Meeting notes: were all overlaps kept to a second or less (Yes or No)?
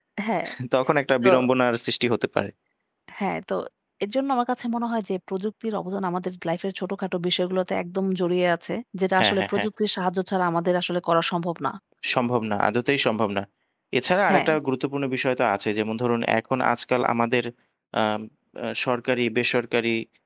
Yes